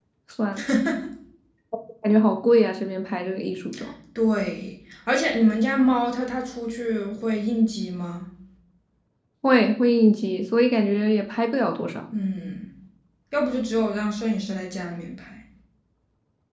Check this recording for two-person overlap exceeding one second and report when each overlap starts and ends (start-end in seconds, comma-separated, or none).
none